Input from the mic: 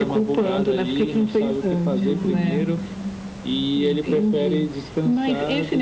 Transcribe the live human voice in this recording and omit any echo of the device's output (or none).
Hum.